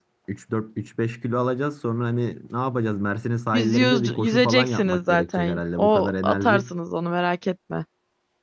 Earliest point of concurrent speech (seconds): 3.5 s

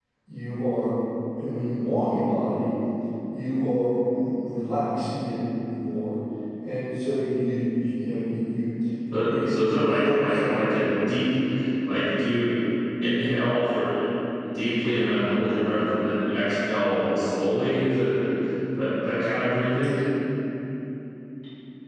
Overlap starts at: 9.4 s

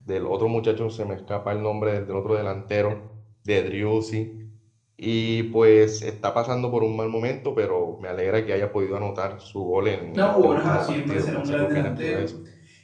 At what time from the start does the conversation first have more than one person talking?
10.1 s

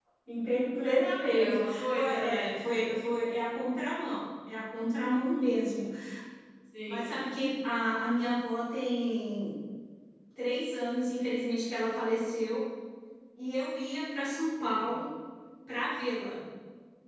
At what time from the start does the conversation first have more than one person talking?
1.1 s

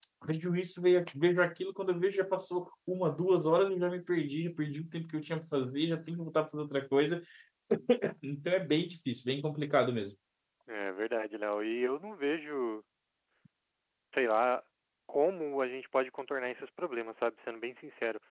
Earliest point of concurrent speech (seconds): none

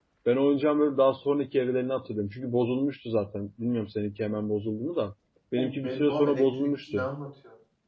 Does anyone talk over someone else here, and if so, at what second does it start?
5.5 s

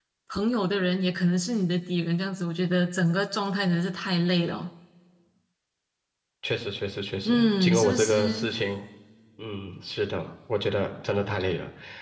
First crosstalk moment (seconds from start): 7.2 s

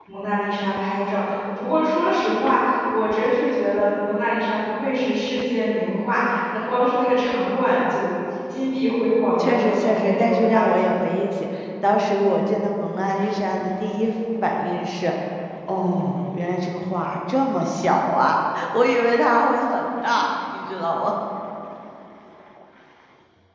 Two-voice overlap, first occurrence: 9.4 s

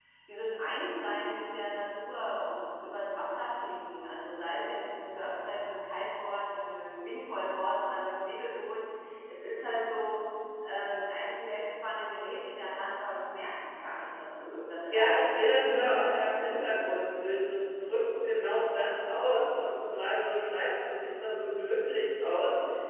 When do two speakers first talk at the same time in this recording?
14.9 s

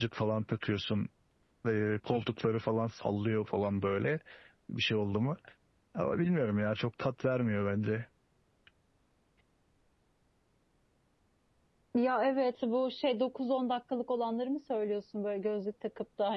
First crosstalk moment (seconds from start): none

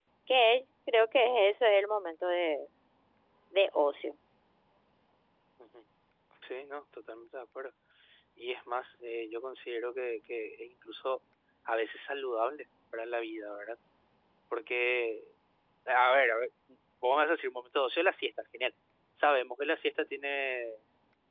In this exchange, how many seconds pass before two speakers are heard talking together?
none

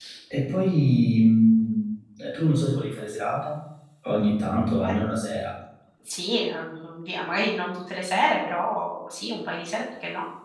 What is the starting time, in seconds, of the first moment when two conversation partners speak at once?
none

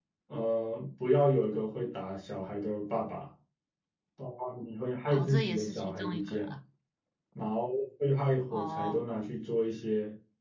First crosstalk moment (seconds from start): 5.1 s

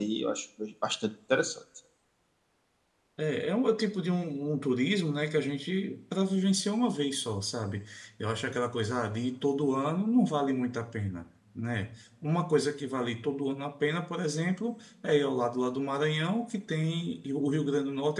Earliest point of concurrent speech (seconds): none

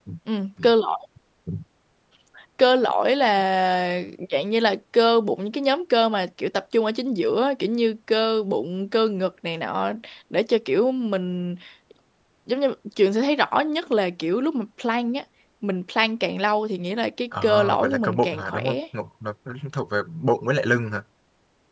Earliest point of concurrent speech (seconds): 17.3 s

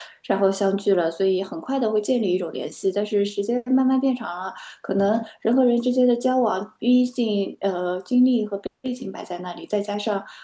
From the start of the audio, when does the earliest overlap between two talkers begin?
none

